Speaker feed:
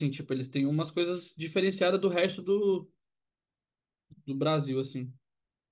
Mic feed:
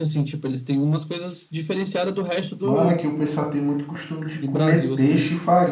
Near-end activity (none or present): present